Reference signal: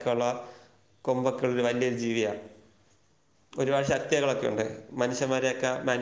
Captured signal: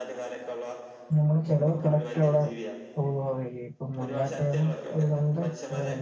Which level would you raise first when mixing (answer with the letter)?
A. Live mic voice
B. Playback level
B